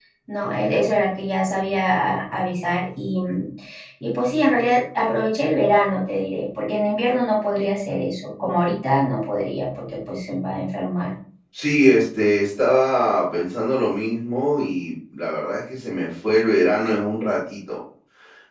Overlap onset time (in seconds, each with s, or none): none